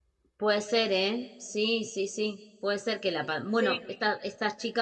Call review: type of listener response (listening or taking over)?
listening